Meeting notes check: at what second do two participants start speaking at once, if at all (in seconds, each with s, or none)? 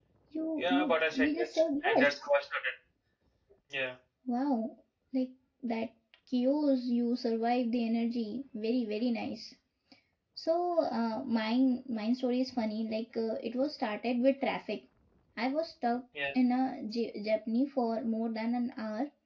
0.6 s